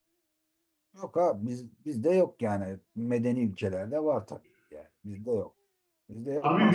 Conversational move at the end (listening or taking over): taking over